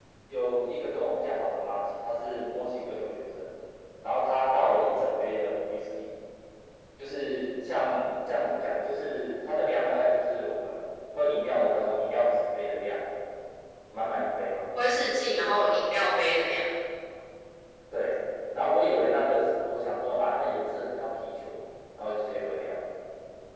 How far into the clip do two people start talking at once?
none

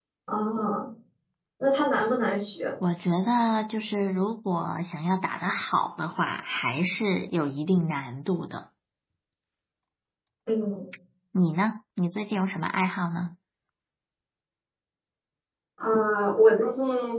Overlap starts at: none

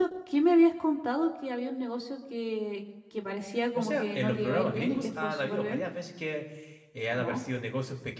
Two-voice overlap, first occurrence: 3.8 s

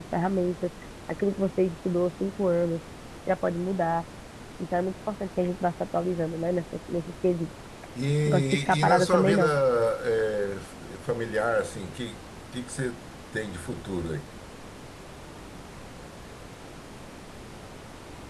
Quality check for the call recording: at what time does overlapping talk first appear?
8.2 s

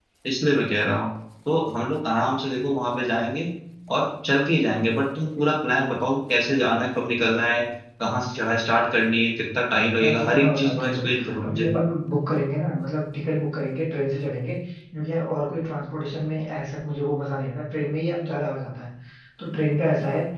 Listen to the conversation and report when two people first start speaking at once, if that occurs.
10.0 s

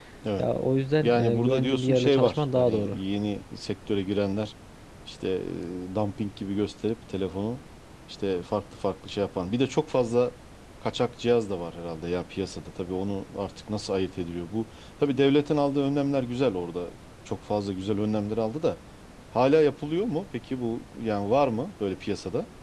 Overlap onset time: 1.0 s

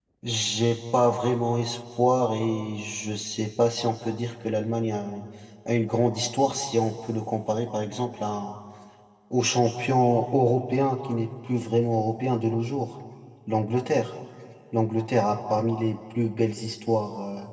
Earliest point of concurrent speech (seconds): none

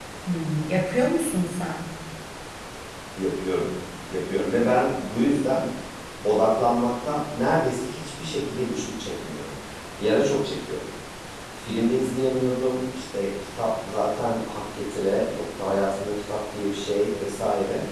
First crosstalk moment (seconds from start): none

